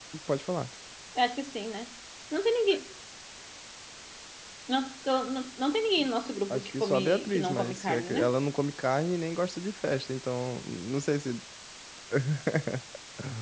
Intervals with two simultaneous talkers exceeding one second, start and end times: 6.5-8.3

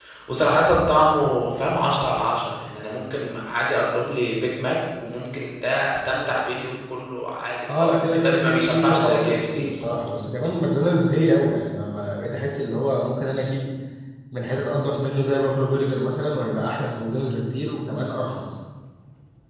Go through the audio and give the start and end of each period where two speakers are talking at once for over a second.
7.7-9.6

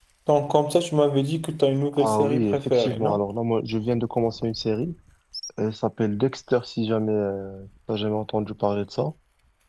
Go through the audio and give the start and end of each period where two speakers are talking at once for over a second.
1.9-3.2

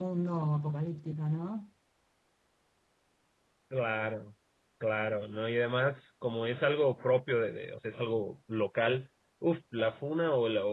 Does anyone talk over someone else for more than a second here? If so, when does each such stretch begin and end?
none

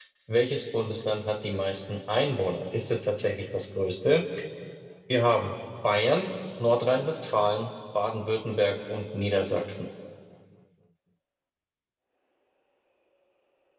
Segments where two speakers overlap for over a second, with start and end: none

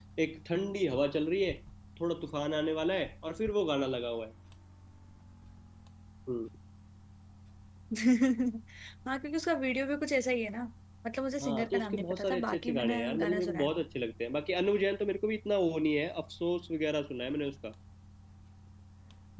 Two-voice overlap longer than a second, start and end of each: 11.4-13.7

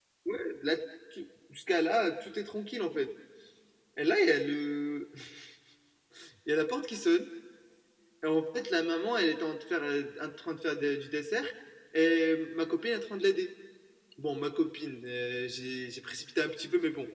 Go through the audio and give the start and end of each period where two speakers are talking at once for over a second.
none

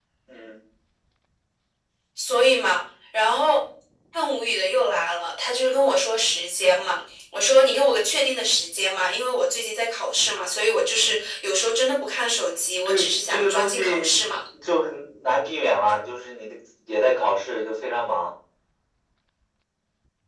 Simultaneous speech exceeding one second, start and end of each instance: 12.8-14.1

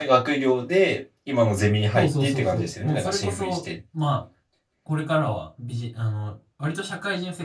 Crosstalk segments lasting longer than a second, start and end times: 1.9-3.6

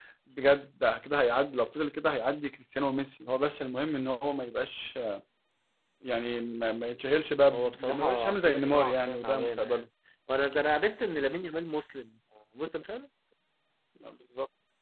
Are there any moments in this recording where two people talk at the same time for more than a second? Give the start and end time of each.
7.5-9.9

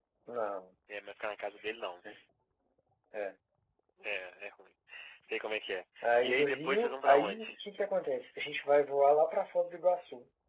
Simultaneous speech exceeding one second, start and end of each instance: 6.0-7.5

